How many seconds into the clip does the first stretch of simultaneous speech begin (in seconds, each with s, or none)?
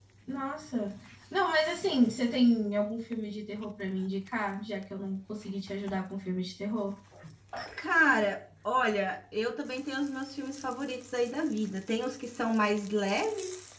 none